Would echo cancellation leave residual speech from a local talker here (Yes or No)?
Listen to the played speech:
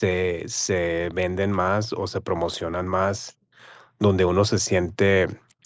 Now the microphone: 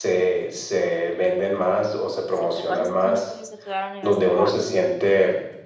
Yes